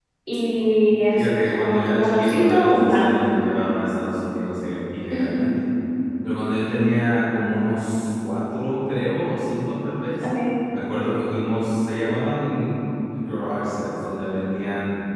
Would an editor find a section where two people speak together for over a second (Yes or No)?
Yes